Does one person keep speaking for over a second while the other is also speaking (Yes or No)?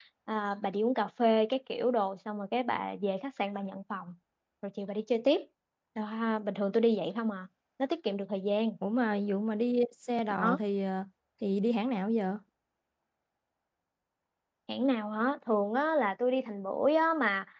No